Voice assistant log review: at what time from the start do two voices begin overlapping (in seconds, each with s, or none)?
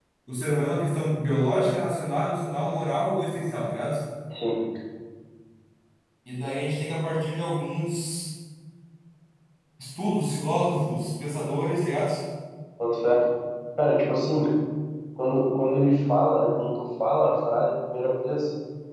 none